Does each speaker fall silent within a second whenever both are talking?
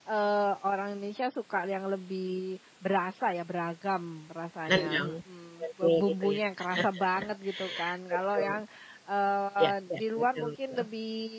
No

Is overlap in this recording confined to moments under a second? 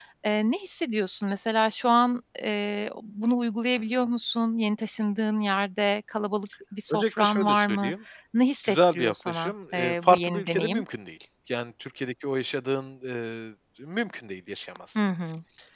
No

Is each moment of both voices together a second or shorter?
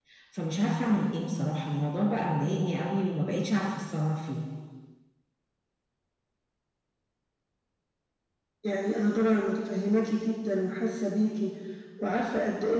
Yes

